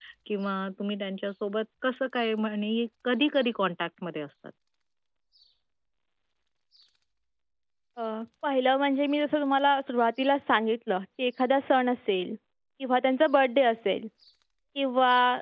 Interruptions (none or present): none